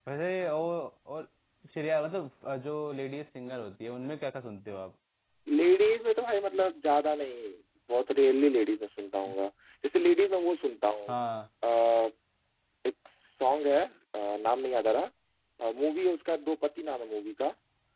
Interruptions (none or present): none